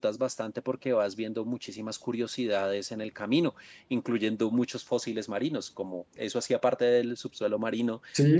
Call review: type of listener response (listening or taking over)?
taking over